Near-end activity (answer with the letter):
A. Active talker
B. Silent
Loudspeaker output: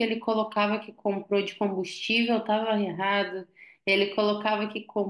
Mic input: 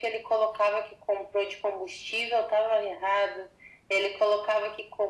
B